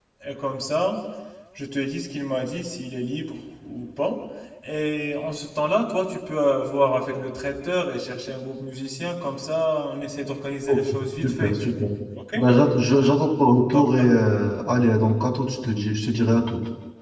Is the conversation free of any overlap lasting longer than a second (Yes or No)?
Yes